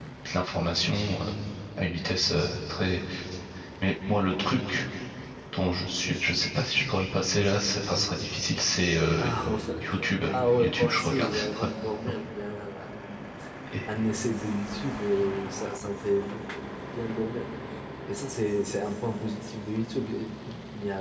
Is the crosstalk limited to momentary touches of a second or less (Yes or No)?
No